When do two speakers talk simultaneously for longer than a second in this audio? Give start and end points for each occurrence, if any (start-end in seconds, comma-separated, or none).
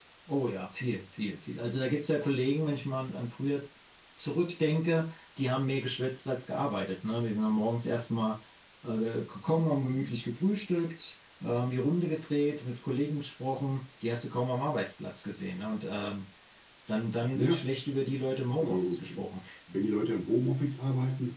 none